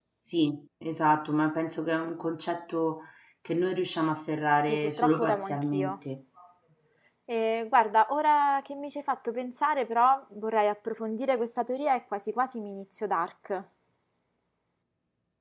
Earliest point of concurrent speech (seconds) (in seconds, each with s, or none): 4.6 s